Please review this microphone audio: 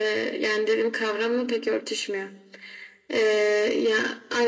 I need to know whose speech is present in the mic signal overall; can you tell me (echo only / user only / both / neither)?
echo only